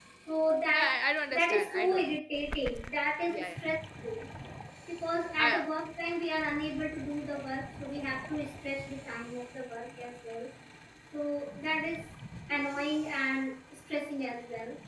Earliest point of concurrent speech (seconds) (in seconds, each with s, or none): 0.7 s